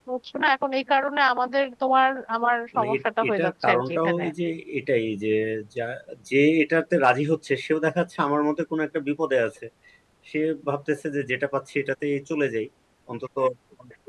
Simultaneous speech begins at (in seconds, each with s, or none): 2.7 s